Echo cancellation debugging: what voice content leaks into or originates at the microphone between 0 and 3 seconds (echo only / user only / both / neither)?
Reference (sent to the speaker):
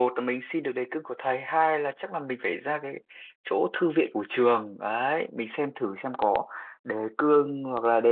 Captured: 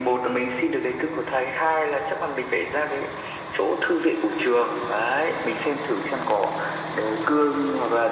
echo only